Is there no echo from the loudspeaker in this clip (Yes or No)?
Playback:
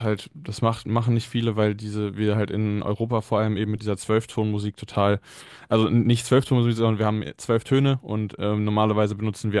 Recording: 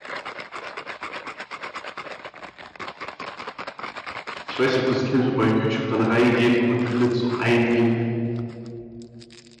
Yes